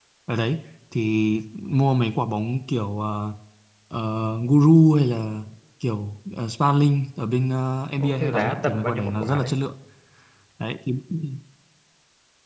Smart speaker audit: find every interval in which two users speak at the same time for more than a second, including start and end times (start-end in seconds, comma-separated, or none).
8.0-9.5